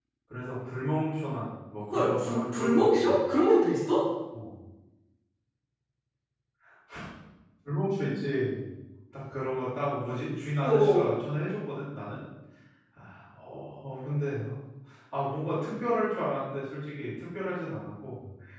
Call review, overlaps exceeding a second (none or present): present